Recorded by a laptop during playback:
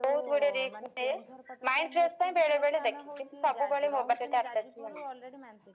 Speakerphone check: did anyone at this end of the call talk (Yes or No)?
Yes